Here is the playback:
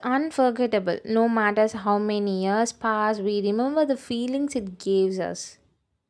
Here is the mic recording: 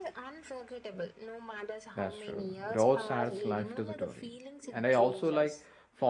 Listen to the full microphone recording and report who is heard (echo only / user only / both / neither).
both